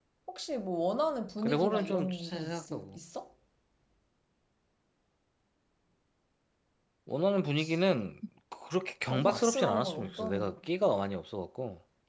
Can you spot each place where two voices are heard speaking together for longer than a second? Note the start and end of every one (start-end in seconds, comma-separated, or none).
1.4-3.0, 9.1-10.6